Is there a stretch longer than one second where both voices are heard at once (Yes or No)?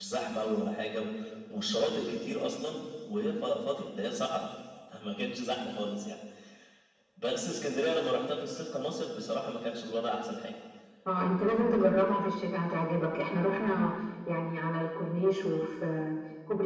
No